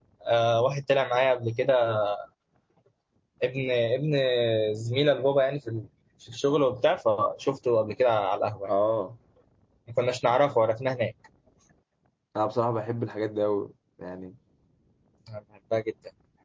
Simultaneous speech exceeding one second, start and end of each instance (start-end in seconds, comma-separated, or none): none